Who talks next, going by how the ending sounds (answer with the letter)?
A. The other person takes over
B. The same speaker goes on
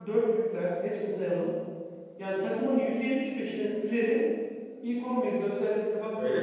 A